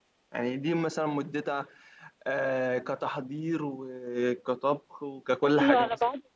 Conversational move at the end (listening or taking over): taking over